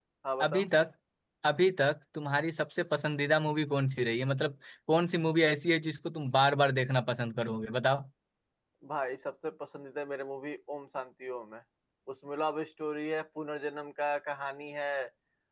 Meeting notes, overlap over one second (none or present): none